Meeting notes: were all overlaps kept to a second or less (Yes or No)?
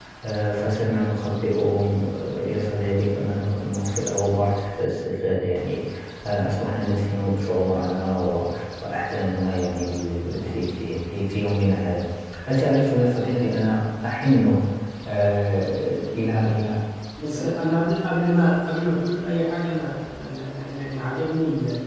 Yes